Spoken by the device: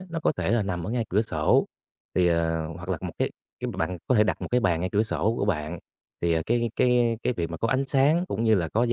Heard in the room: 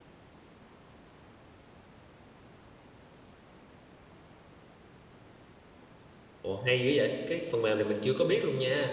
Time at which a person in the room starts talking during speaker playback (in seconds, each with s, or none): 6.4 s